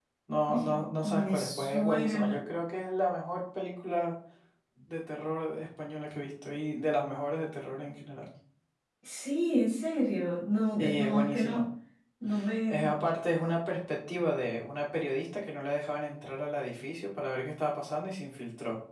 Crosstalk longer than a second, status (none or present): present